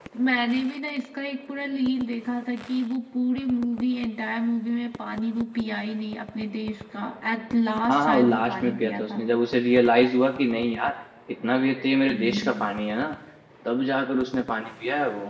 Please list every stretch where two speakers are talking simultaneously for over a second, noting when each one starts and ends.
7.9-9.2

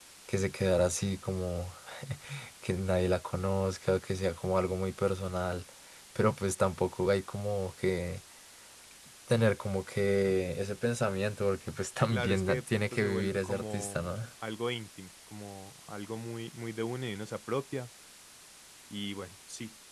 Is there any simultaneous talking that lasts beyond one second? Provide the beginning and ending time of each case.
12.1-14.2

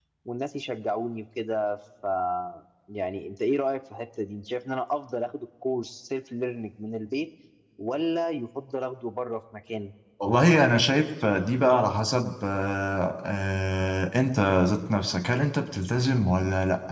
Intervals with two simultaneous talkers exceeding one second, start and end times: none

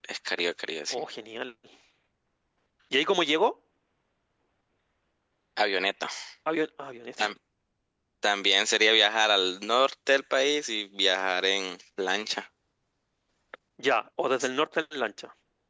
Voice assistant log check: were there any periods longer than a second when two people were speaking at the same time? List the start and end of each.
none

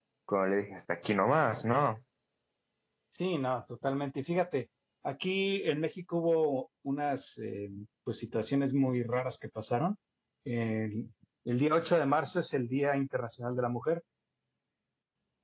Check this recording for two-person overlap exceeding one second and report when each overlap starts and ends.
none

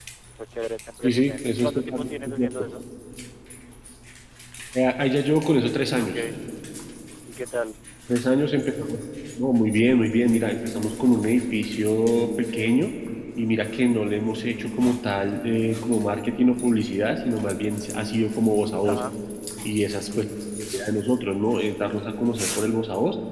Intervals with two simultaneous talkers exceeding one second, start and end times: 1.0-2.5

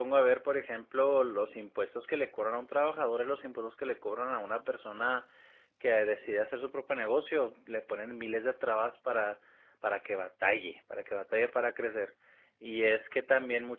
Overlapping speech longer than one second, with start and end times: none

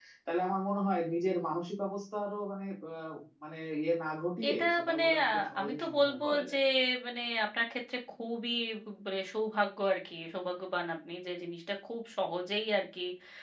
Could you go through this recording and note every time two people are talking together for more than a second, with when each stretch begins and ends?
4.5-6.6

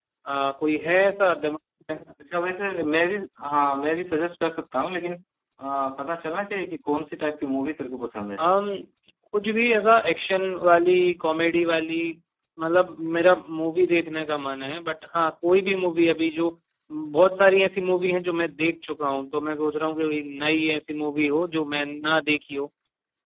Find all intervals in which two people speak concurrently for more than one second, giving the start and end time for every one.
none

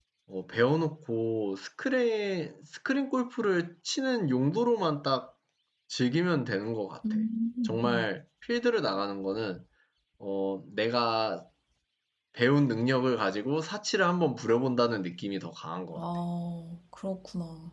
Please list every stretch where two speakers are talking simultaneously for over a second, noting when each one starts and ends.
none

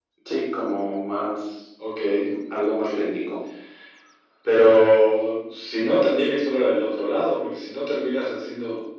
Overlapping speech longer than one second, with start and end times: none

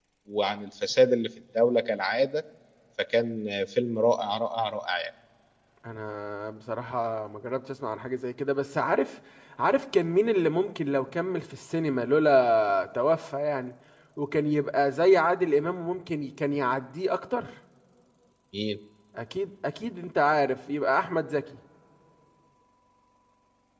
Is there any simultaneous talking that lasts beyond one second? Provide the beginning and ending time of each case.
none

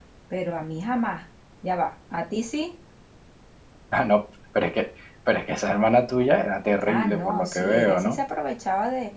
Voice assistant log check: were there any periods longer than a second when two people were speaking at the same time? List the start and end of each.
6.9-8.2

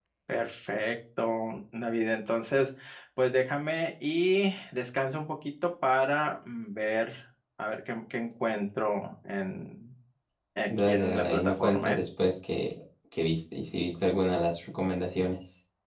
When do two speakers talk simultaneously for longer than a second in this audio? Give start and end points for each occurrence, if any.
10.7-12.0

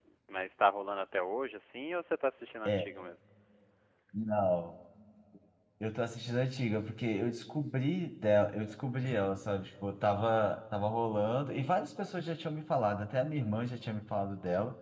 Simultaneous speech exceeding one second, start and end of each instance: none

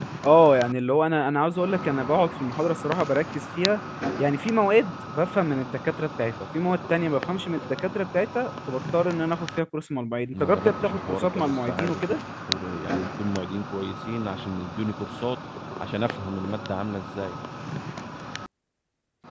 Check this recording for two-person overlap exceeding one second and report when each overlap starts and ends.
10.3-12.2

